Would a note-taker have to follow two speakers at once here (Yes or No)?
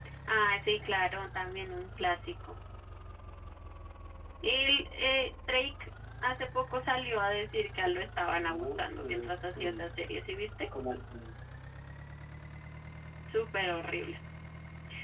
Yes